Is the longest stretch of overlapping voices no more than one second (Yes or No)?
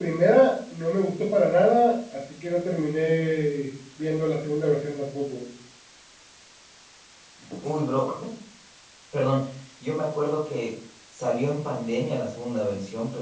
Yes